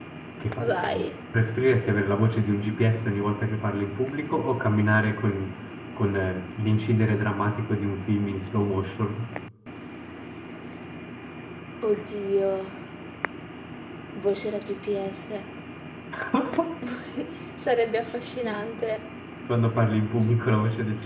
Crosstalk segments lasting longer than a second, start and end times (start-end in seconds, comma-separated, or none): none